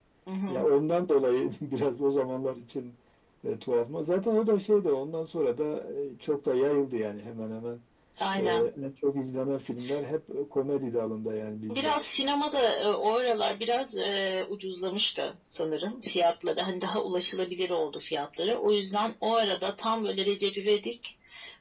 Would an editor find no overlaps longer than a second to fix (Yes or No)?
Yes